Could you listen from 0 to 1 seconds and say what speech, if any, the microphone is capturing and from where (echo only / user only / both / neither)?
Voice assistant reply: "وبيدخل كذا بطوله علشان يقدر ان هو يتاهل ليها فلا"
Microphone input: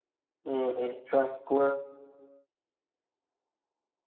user only